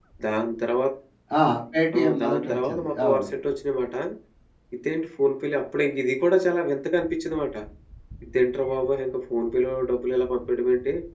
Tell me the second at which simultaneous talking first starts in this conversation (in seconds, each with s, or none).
2.0 s